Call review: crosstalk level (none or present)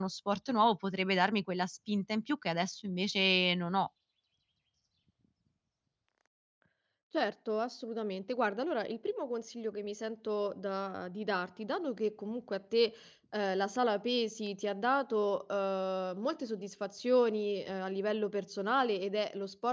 none